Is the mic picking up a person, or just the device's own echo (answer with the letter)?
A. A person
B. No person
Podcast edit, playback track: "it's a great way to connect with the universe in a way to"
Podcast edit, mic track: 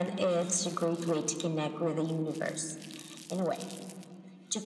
B